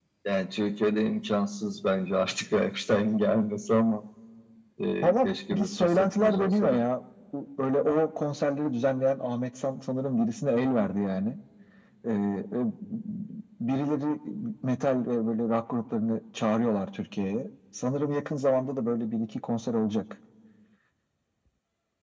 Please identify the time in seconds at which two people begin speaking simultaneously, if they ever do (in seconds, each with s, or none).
5.0 s